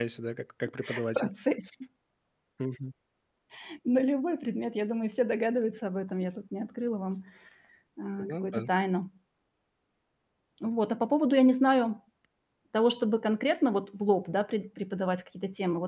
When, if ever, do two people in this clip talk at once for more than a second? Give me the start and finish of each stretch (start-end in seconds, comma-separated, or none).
none